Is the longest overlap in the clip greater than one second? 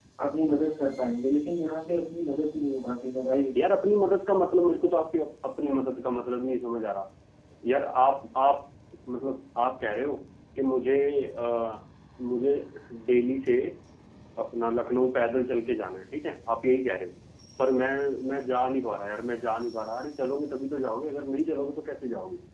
No

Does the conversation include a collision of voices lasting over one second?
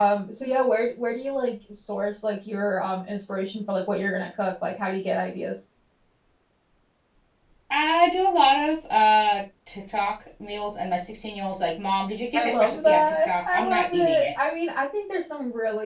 Yes, from 12.3 s

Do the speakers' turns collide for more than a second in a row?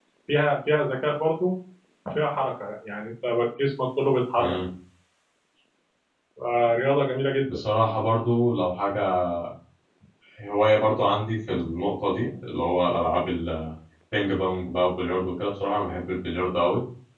No

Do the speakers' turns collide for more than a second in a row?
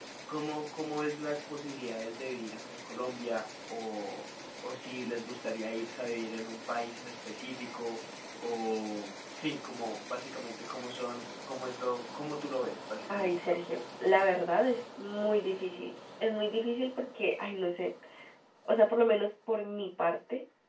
No

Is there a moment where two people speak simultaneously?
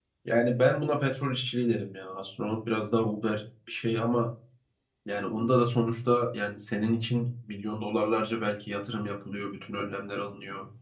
No

